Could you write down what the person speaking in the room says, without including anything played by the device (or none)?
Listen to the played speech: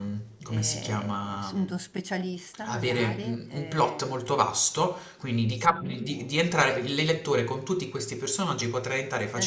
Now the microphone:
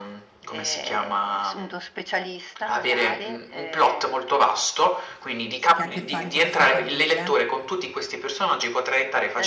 che ha a che fare con la sua famiglia,